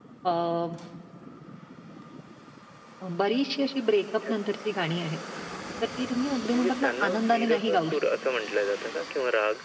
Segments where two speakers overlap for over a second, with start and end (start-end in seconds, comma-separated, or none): 6.5-8.0